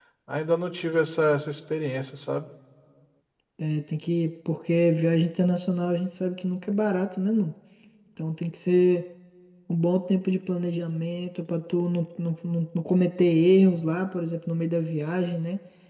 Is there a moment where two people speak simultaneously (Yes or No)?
No